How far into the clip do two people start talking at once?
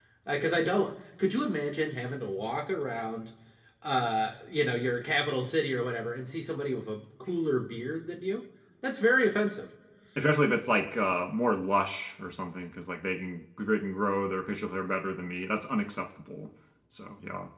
none

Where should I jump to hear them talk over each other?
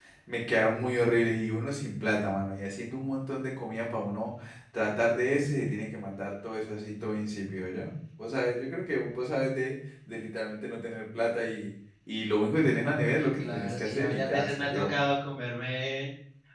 13.0 s

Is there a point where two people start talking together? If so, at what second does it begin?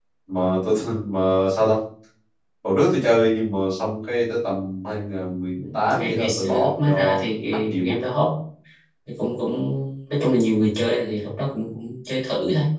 5.6 s

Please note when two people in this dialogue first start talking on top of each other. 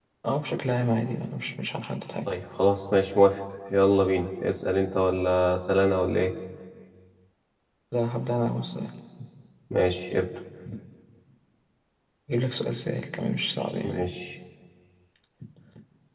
none

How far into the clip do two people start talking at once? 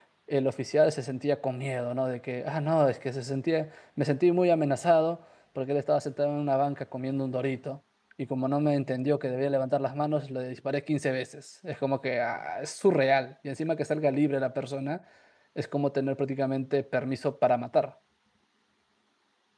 none

